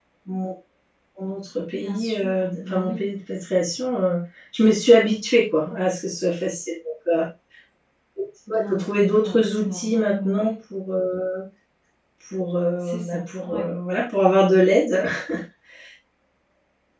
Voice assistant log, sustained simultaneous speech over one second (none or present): present